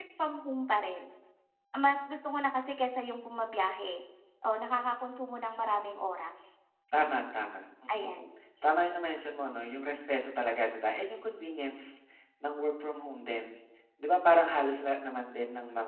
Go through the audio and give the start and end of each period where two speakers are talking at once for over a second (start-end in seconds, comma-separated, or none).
none